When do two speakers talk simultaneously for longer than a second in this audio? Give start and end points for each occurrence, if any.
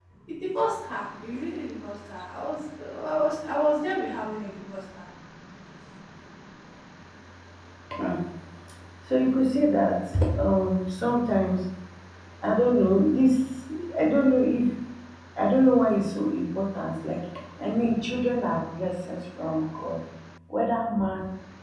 none

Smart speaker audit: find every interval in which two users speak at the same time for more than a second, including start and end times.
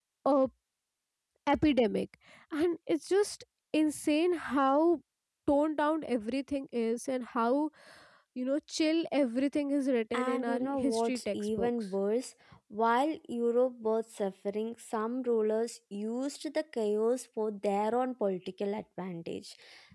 10.1-11.7

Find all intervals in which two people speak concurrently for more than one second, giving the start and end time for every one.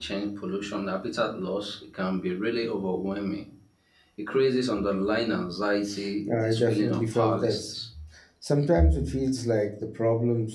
6.4-7.8

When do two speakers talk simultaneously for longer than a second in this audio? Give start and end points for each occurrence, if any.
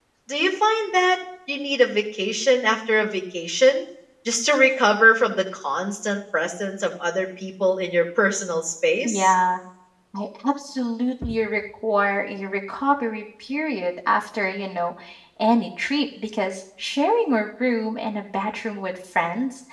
none

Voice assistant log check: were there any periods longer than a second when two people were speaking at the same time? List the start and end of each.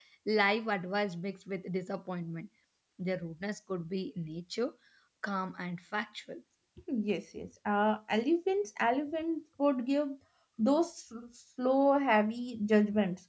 none

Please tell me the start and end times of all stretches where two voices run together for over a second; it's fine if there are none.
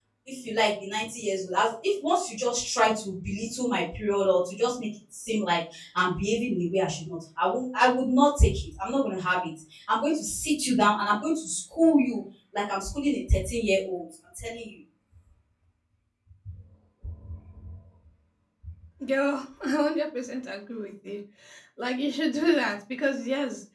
none

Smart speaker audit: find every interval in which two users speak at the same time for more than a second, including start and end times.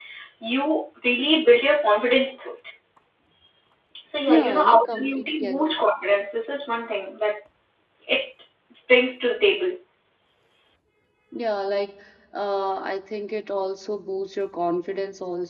4.3-5.7

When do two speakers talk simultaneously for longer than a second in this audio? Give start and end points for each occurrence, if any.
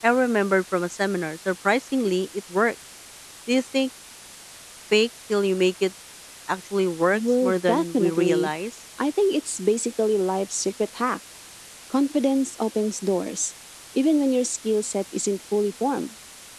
7.1-8.5

